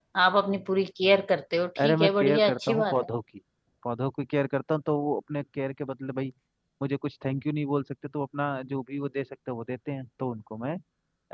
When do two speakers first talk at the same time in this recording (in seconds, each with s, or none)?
1.8 s